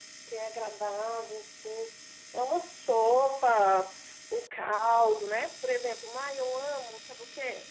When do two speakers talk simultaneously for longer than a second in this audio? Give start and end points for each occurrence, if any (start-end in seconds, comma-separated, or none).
none